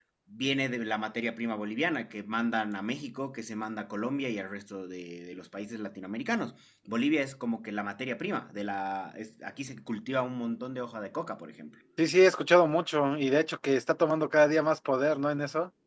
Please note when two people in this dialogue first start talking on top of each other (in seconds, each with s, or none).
none